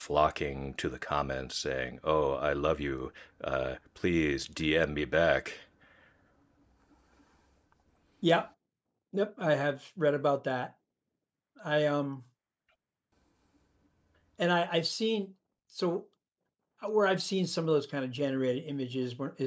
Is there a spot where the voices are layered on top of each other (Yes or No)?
No